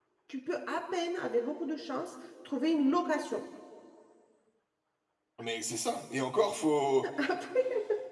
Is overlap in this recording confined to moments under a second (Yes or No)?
Yes